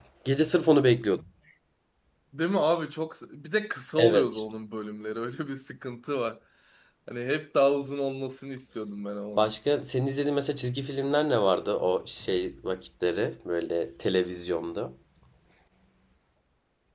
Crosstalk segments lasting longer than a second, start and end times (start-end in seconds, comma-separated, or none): none